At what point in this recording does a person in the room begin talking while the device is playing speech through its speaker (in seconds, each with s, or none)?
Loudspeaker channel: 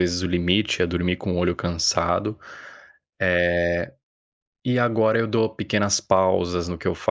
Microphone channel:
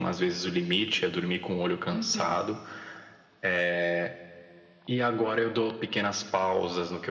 1.9 s